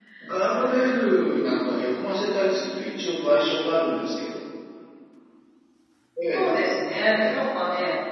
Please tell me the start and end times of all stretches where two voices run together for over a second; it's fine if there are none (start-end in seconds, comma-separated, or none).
none